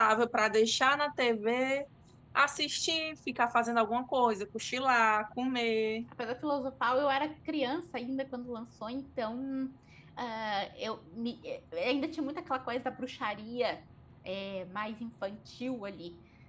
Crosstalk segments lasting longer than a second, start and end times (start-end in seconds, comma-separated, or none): none